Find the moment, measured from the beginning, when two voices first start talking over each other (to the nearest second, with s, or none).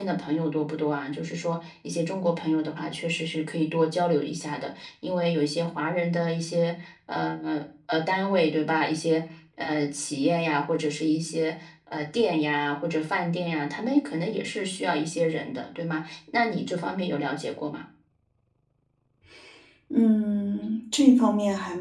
none